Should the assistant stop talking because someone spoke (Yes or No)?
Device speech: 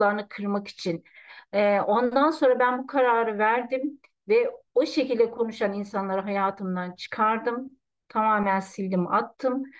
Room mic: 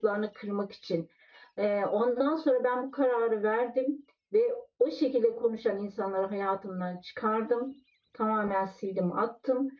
No